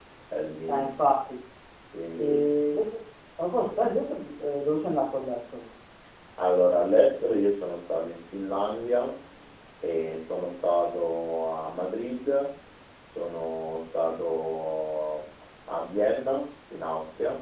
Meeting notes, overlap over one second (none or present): none